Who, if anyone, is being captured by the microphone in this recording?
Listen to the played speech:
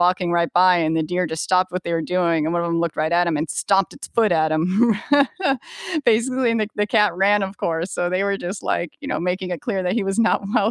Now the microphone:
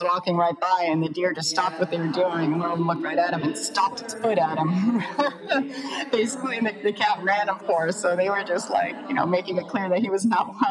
both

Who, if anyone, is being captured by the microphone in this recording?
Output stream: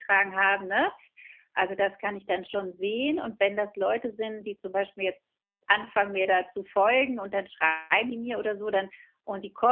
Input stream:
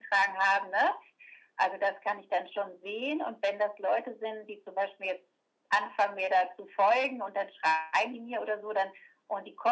echo only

